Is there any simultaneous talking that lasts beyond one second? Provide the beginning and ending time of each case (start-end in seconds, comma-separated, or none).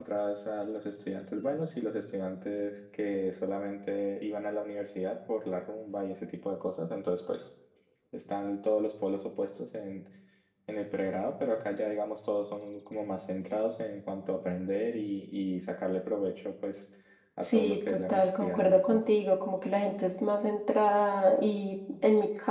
17.4-19.0